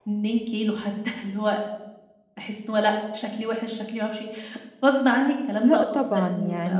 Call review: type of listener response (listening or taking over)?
taking over